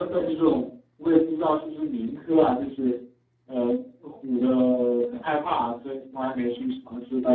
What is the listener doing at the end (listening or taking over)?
taking over